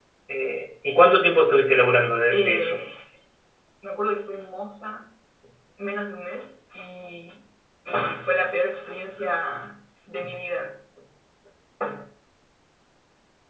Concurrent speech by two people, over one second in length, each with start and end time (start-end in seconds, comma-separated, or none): none